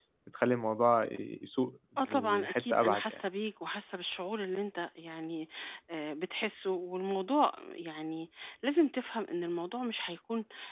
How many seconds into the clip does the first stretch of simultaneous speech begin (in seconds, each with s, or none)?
2.0 s